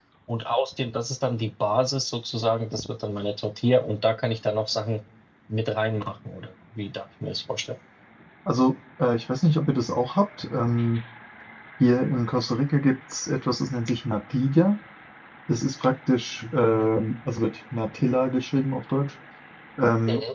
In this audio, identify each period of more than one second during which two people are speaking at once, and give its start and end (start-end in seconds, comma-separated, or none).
none